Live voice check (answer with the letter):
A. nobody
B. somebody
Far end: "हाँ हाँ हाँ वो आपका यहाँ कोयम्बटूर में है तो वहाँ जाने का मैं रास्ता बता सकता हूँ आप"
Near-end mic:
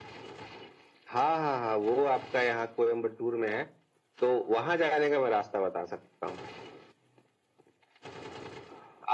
A